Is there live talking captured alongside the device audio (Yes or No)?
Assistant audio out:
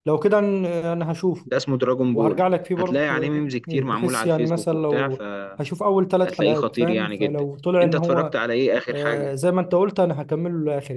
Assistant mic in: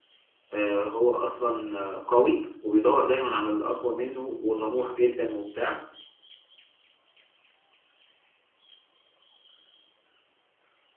Yes